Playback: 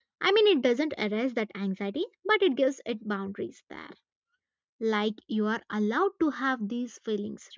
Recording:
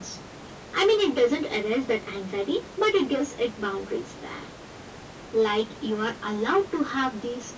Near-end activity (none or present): none